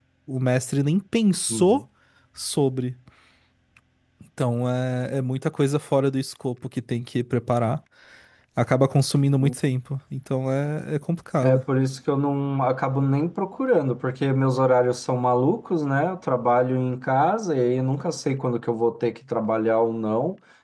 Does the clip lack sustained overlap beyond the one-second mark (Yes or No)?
Yes